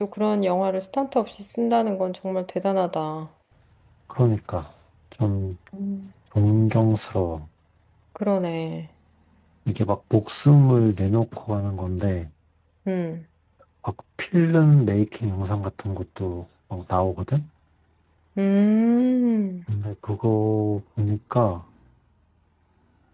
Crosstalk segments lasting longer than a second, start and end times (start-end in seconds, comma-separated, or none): none